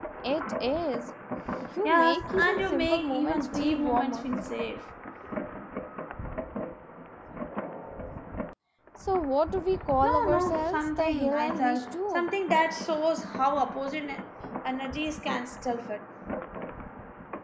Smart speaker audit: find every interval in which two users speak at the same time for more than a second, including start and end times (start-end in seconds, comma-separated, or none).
1.8-4.3, 10.0-12.3